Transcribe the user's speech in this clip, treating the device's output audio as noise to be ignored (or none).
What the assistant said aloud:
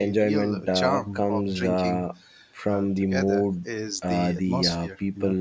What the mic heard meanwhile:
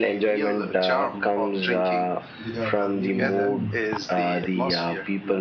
without uh, leaving the room.